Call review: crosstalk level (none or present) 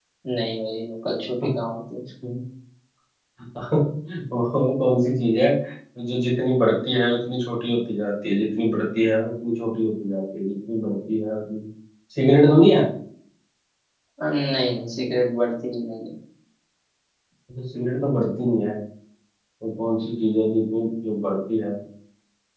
none